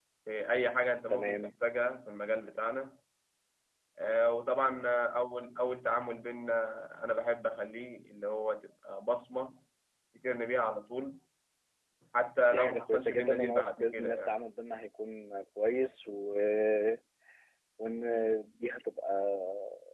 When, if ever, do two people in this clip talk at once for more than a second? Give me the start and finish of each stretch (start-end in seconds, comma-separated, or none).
12.5-14.3